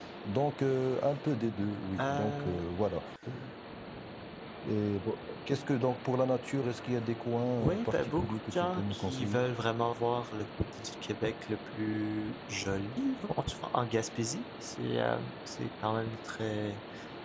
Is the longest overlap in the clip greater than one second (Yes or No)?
Yes